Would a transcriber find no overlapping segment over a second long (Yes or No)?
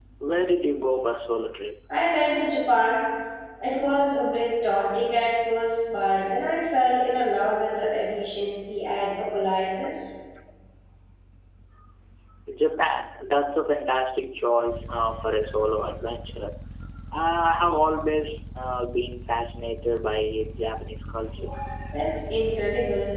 Yes